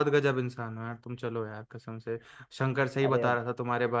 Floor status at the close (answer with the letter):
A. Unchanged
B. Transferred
A